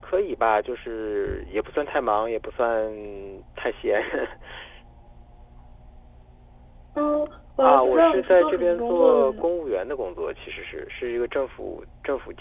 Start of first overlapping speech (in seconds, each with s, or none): 7.6 s